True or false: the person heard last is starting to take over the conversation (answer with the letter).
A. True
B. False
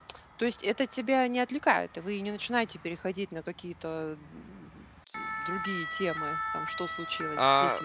A